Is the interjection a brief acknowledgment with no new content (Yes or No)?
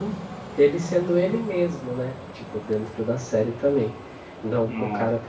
Yes